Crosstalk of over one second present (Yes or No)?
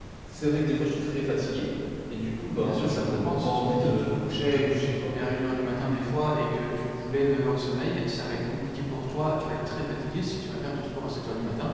Yes